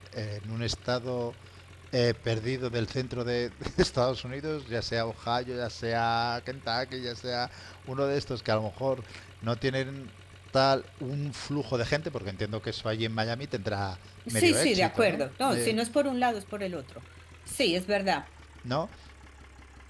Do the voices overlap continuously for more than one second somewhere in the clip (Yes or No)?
Yes